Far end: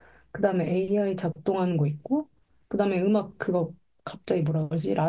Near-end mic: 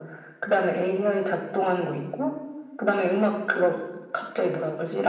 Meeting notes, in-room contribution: none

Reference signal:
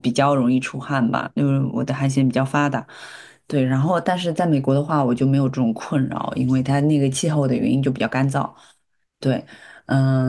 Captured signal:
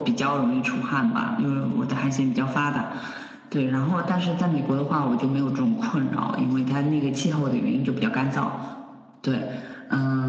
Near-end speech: none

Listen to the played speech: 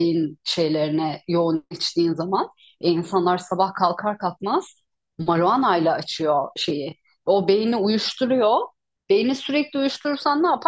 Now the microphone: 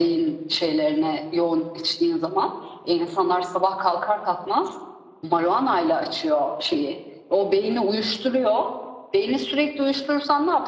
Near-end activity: none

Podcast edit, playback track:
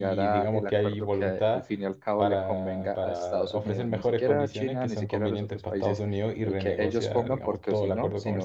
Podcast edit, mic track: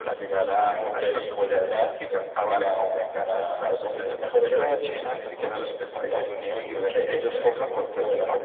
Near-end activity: present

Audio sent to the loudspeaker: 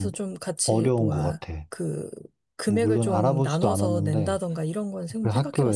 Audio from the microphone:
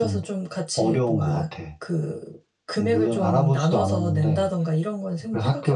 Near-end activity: none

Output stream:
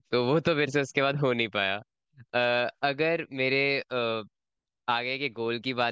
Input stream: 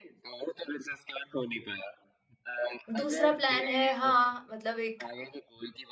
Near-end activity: present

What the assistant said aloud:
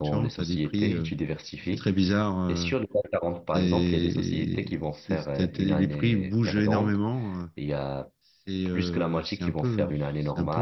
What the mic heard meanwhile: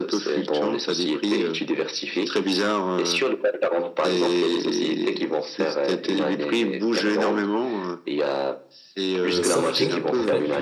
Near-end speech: present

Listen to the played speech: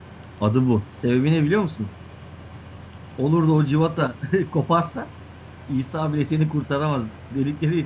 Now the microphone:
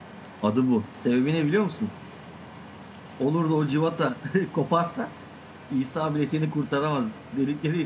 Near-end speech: none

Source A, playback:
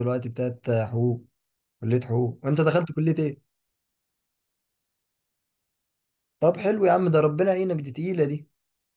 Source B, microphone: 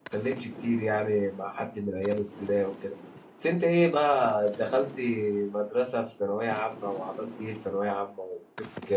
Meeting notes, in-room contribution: present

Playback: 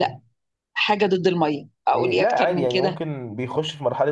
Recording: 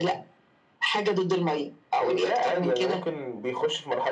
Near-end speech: none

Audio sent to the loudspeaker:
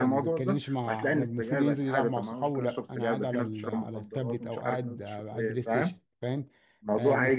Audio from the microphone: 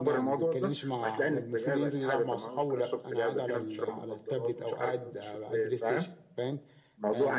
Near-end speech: none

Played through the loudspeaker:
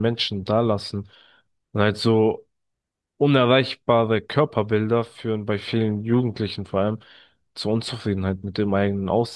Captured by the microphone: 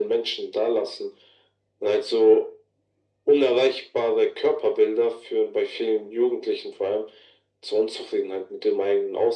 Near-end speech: none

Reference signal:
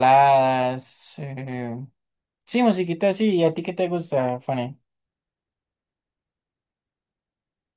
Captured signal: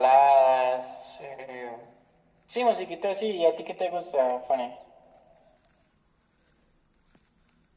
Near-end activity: none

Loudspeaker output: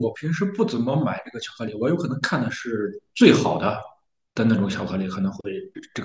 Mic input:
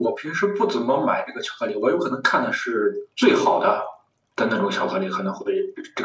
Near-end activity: none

